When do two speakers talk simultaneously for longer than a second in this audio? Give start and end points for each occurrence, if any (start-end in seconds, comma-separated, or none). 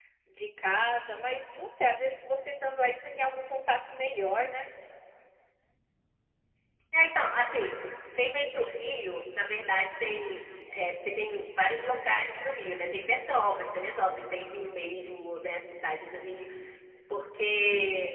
none